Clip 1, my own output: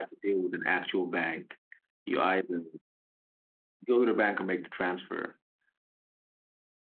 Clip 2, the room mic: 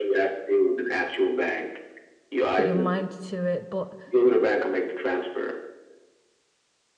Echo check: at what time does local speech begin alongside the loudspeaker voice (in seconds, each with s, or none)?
2.5 s